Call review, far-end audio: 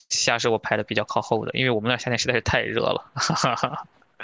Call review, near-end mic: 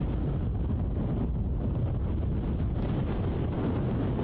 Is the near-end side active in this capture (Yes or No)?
No